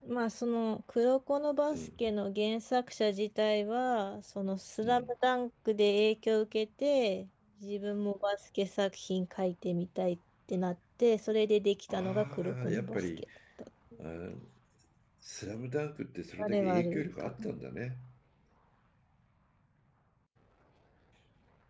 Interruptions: present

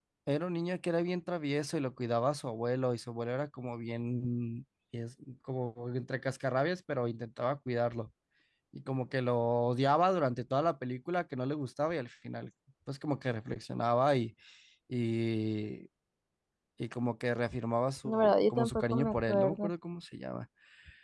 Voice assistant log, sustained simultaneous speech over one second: present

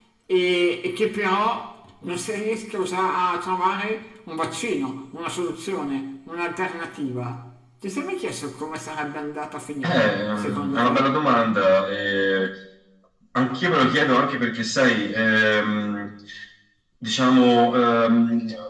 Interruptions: present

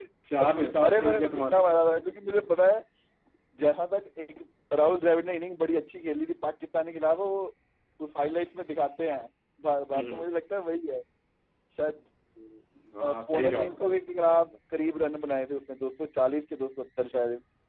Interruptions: present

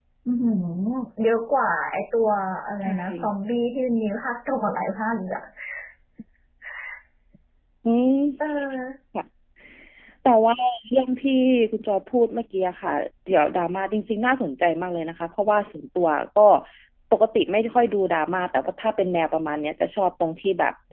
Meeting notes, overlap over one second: none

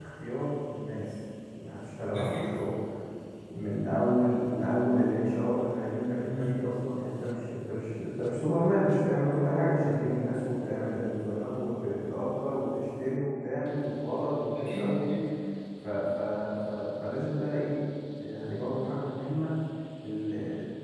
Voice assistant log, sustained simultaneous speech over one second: none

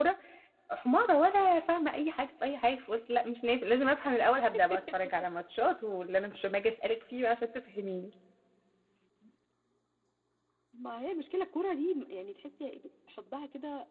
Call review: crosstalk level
none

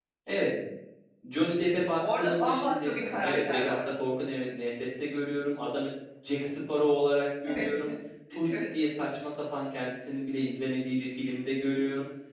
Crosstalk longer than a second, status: present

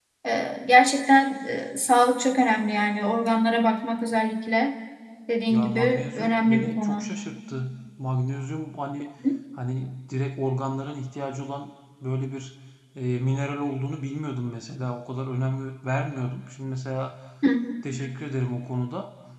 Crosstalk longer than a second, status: present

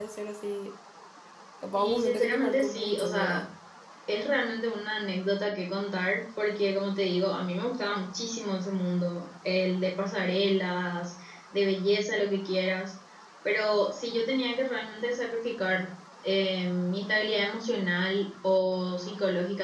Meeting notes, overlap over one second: present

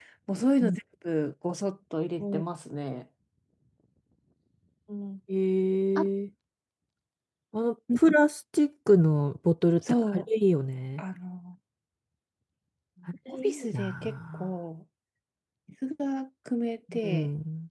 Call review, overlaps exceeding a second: present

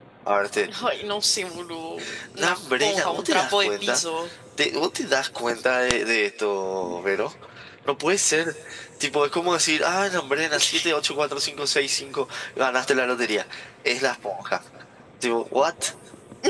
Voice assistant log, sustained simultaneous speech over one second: present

